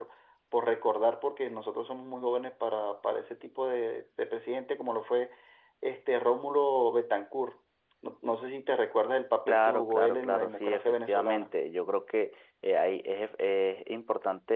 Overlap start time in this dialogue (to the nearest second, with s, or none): 9 s